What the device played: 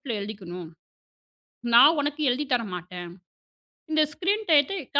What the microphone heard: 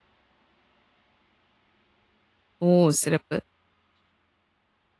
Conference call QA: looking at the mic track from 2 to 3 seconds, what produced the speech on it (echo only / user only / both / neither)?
user only